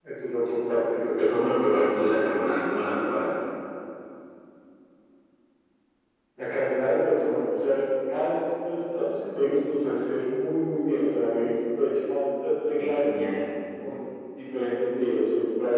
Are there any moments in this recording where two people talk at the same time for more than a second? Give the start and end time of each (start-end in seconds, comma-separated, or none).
none